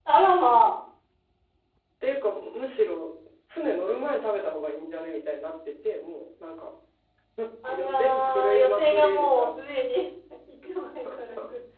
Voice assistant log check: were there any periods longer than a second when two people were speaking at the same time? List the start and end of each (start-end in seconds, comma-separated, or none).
7.7-9.5